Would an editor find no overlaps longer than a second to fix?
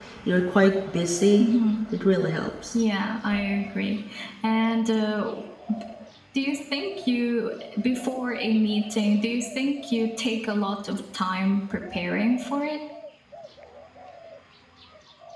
Yes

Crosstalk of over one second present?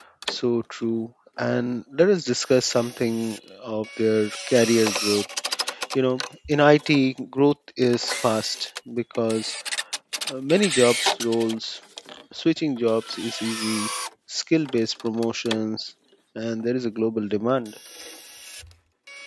No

